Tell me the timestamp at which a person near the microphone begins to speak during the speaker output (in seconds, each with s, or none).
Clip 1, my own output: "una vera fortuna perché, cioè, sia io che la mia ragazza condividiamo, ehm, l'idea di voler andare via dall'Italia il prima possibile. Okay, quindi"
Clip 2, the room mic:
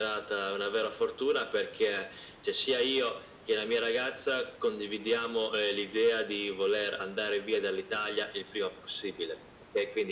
none